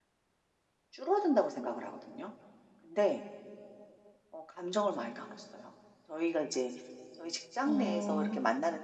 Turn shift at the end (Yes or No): No